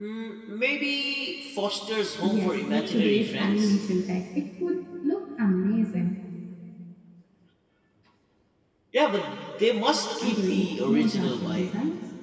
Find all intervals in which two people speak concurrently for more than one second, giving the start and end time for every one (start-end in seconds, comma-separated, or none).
2.2-3.8, 10.2-11.7